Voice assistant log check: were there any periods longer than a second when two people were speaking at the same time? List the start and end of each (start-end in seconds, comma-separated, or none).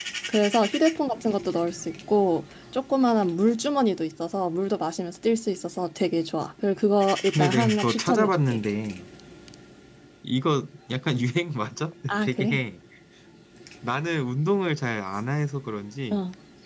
7.3-8.6